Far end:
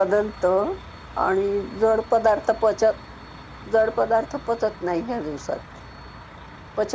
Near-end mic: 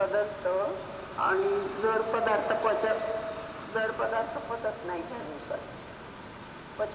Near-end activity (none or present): none